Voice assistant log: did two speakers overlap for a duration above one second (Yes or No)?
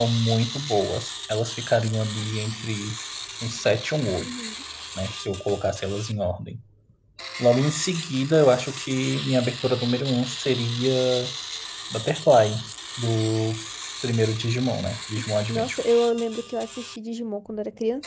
No